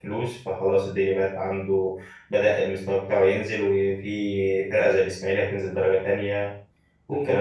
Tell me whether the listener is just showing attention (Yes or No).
No